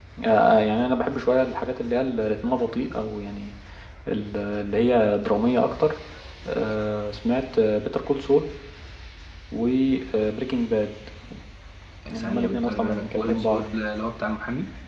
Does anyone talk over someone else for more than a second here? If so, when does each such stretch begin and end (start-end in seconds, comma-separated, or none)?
12.1-13.9